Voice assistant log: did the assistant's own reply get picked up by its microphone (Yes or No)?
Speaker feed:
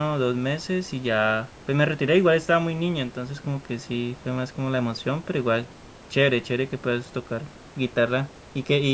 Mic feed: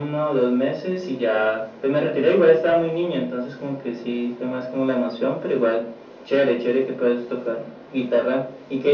Yes